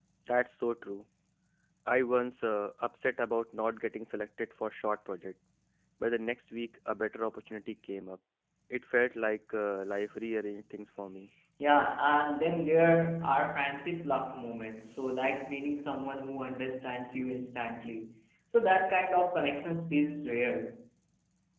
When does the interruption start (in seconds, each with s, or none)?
none